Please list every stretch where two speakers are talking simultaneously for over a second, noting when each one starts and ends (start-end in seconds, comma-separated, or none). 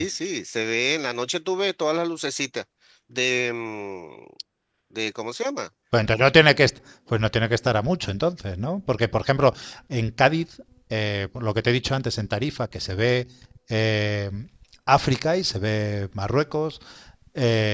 none